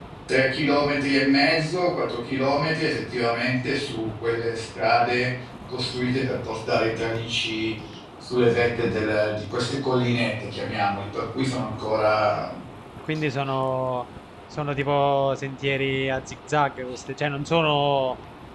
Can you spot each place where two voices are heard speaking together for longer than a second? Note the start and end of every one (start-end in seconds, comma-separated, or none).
none